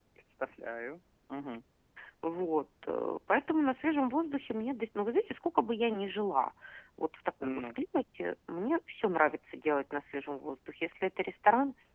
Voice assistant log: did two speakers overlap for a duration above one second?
No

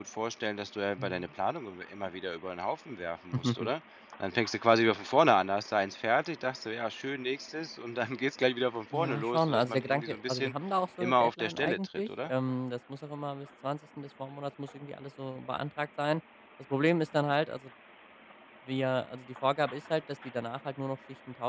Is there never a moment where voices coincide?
No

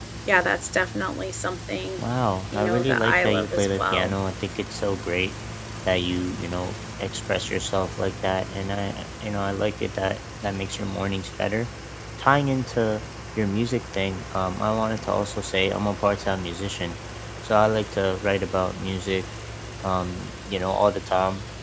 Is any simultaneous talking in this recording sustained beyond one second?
Yes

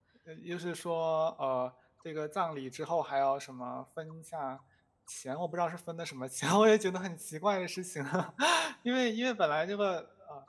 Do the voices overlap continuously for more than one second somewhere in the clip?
No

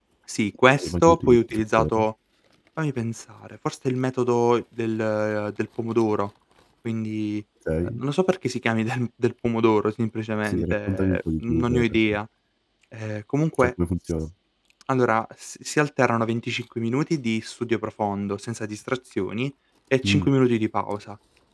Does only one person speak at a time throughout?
No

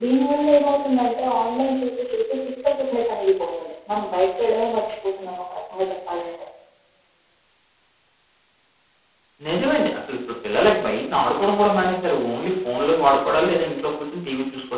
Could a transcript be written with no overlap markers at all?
Yes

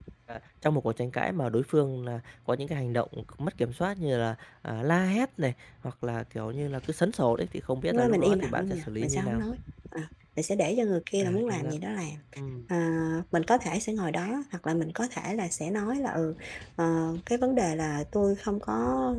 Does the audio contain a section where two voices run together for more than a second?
Yes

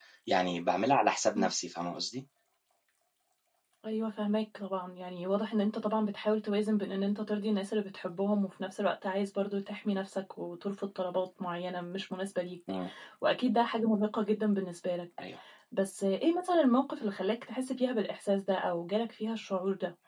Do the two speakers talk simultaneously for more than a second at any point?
No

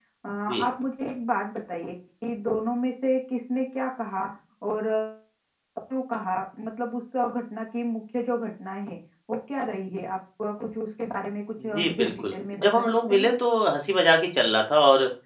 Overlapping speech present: Yes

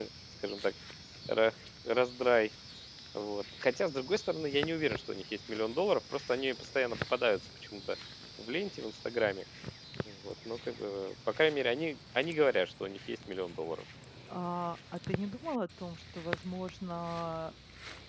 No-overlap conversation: Yes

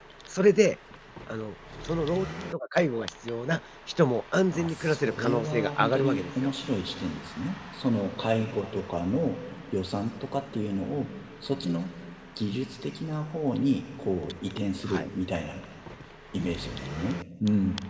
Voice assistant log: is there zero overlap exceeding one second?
No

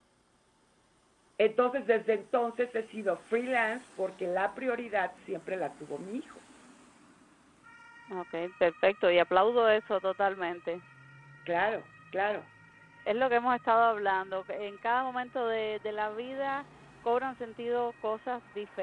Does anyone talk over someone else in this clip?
No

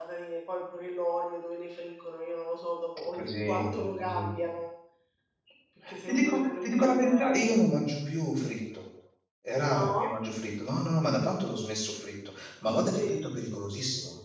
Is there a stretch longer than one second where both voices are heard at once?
Yes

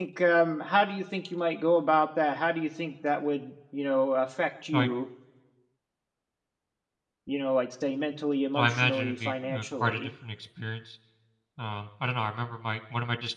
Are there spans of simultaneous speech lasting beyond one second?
Yes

